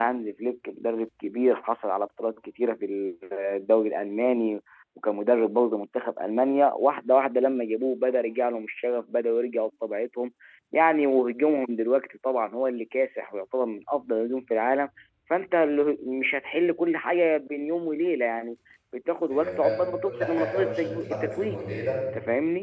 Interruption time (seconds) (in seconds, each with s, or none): 19.3 s